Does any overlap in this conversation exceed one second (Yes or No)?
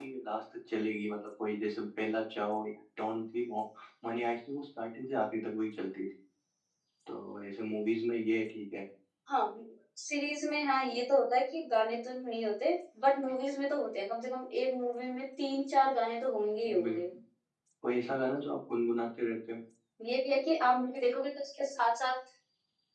No